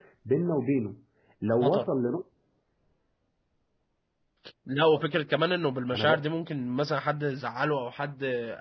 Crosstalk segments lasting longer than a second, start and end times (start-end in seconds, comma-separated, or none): none